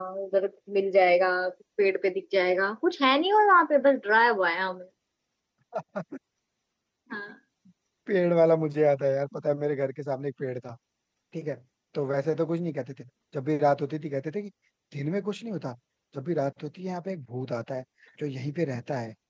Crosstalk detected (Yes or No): No